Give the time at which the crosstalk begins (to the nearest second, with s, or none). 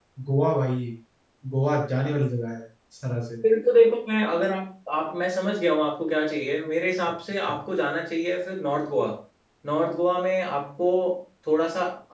none